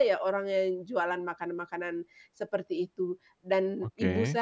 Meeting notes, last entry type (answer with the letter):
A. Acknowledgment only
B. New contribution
A